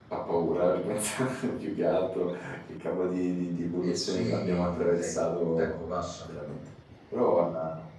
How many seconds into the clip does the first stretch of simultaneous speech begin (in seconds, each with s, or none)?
3.8 s